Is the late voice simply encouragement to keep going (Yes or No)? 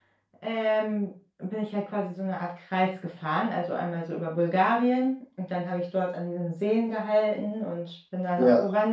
Yes